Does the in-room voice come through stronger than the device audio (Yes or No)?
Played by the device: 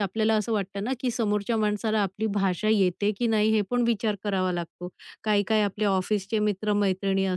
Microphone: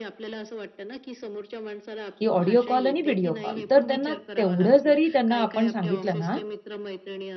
Yes